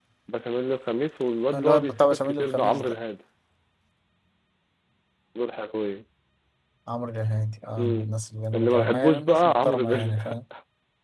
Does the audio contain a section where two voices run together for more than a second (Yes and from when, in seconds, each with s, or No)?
Yes, from 1.5 s